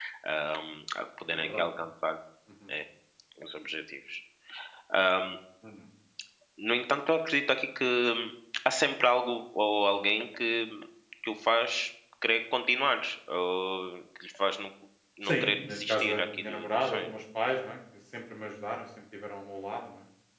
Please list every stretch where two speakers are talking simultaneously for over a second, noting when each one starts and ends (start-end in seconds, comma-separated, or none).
15.2-17.1